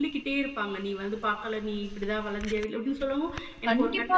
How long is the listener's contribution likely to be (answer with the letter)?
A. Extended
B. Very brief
A